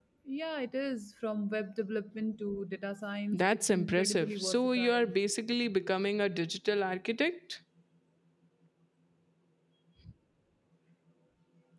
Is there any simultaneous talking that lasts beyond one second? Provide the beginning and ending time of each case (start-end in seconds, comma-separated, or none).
3.3-5.1